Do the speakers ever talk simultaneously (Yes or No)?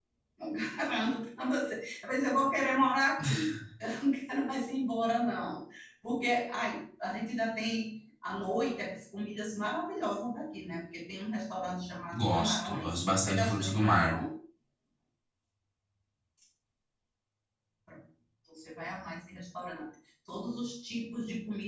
Yes